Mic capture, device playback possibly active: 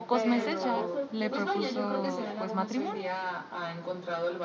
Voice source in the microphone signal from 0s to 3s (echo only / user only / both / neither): both